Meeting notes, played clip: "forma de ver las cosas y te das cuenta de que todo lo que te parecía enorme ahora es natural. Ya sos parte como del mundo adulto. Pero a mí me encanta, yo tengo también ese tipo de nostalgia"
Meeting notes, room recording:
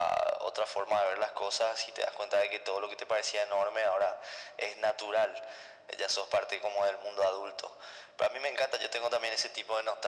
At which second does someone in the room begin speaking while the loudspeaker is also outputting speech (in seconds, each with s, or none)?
none